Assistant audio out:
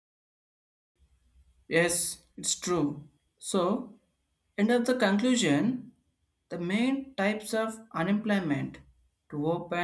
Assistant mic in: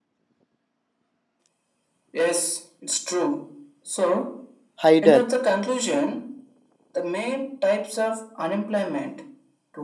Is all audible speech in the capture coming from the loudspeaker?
No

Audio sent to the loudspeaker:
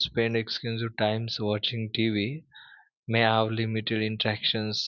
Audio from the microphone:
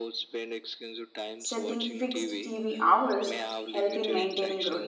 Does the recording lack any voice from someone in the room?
No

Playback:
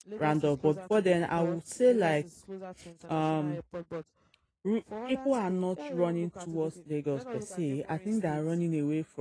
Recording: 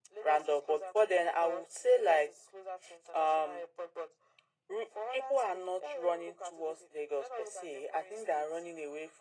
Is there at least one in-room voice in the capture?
No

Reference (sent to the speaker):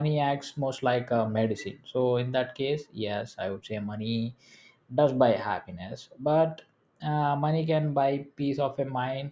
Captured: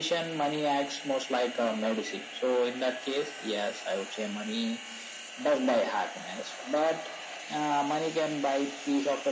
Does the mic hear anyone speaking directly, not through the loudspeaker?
No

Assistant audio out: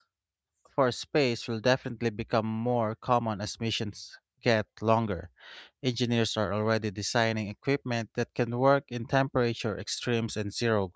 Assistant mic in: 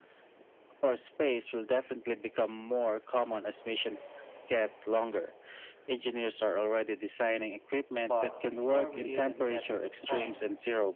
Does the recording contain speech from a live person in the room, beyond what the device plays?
Yes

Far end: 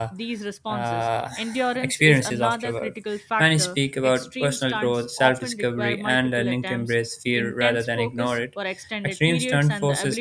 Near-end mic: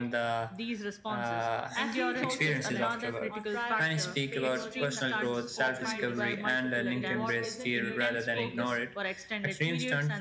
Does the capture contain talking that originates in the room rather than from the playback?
Yes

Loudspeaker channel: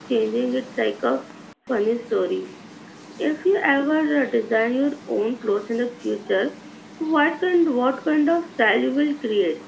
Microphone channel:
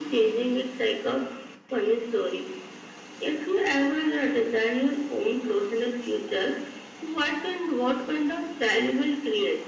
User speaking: No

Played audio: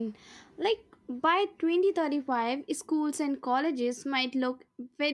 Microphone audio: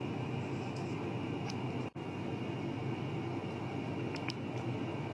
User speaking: No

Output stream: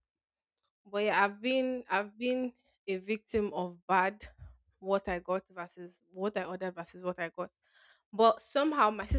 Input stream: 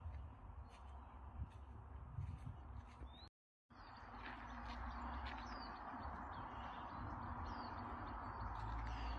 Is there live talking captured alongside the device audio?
No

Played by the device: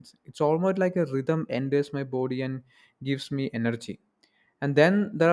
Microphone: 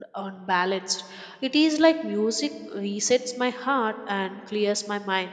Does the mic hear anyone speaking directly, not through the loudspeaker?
Yes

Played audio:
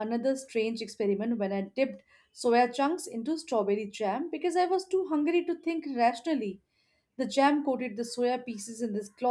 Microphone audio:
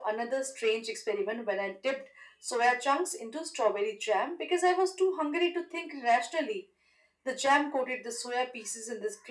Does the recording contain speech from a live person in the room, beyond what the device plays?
No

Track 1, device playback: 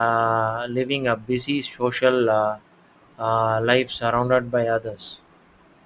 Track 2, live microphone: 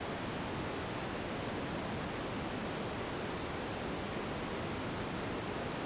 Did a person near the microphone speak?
No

